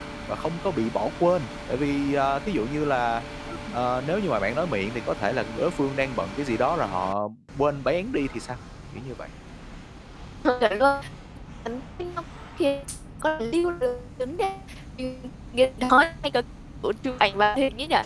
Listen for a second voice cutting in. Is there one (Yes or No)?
No